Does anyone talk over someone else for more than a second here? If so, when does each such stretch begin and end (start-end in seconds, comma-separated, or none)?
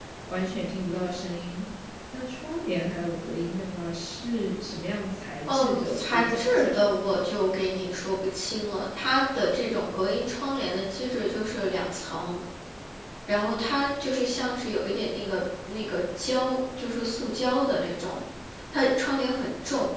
5.5-6.9